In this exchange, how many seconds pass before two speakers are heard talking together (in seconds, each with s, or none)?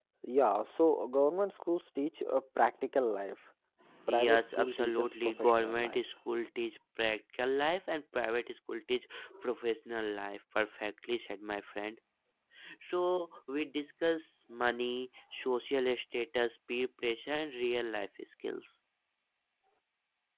4.3 s